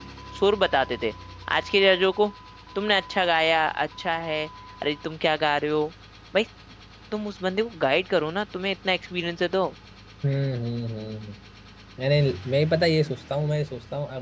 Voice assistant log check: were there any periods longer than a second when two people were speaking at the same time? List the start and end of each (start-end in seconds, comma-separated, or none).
none